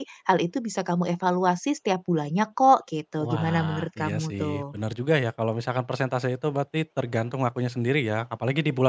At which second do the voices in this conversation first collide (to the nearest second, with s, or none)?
3 s